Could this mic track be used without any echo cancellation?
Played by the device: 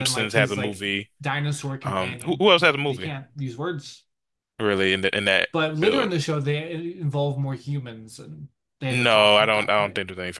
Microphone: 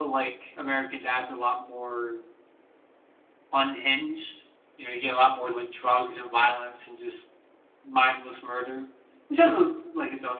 Yes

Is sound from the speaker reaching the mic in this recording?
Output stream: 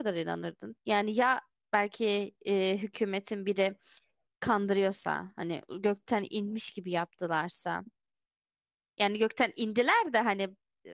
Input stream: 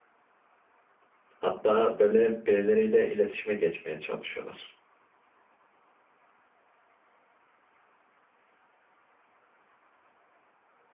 No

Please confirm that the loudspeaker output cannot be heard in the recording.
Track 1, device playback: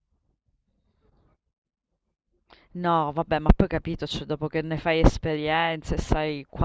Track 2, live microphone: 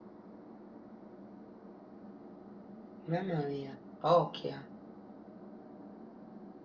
Yes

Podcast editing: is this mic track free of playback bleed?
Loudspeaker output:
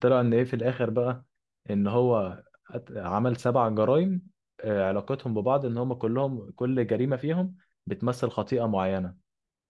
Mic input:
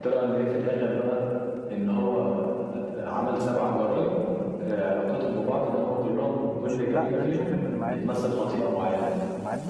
No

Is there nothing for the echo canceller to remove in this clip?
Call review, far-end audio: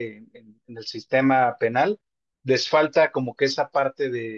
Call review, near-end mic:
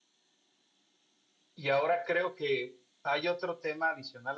Yes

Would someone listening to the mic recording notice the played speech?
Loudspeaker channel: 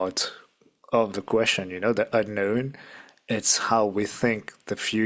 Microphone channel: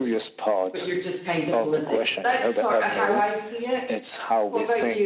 Yes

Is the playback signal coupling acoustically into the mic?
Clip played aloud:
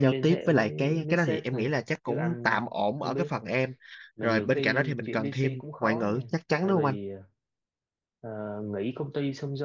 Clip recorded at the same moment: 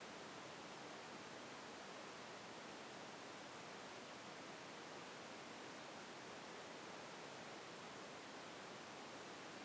No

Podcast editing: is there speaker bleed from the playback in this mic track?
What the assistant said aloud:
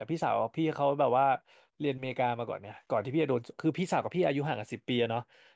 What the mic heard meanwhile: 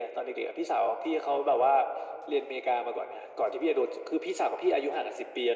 Yes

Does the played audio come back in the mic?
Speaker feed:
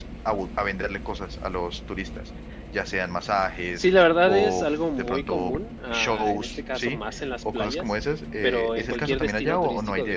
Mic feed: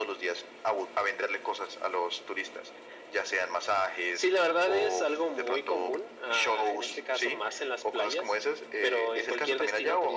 Yes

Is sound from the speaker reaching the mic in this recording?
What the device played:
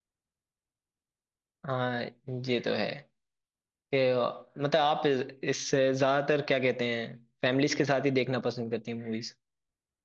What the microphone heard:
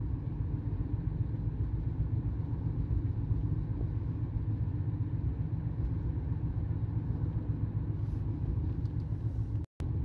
No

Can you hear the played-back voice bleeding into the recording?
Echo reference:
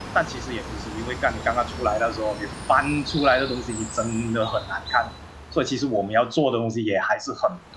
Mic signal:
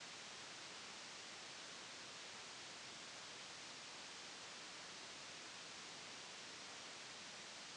No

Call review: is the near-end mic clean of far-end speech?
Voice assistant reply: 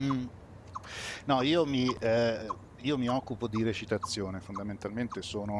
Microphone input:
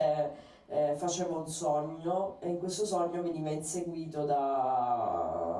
Yes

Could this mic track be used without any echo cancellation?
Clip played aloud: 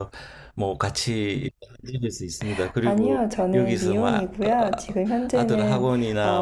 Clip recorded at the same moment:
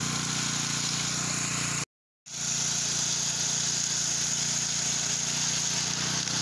Yes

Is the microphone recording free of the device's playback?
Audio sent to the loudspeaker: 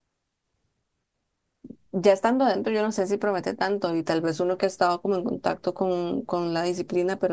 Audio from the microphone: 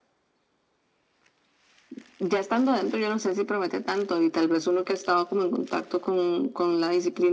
No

